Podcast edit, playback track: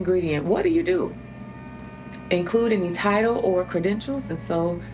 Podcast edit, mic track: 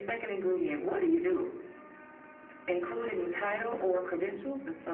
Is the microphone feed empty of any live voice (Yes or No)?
Yes